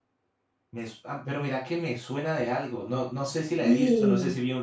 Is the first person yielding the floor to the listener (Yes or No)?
No